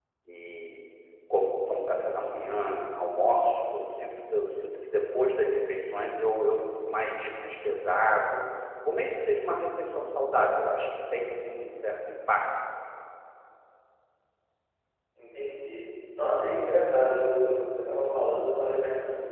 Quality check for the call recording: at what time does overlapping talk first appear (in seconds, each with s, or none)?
none